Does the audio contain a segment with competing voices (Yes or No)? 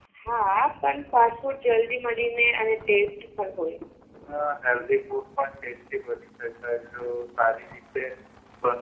No